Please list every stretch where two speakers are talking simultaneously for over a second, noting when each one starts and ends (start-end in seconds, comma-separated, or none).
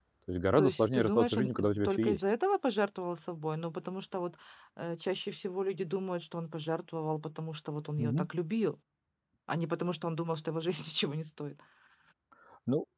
0.6-2.2